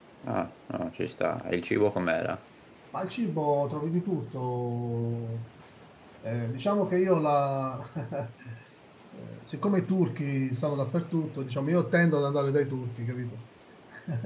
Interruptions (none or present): none